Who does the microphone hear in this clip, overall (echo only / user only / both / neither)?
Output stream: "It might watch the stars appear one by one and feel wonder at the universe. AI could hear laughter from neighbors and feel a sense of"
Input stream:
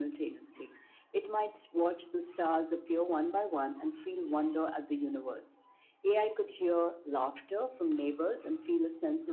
echo only